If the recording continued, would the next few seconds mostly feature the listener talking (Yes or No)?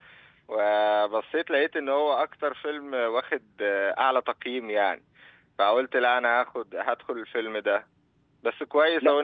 No